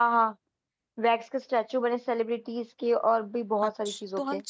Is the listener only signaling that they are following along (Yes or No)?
No